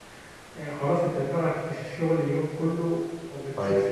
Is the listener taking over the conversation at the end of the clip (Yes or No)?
No